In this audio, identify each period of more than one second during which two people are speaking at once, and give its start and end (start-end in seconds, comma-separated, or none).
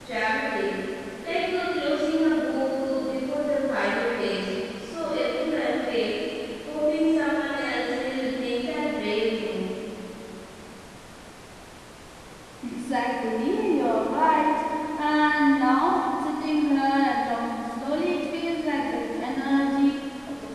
none